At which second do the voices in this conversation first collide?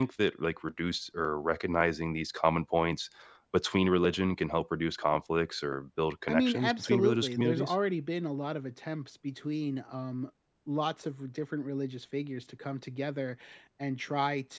6.3 s

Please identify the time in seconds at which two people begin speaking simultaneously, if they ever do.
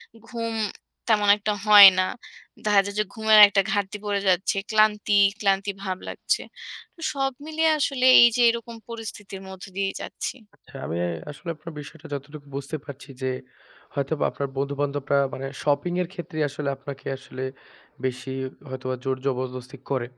none

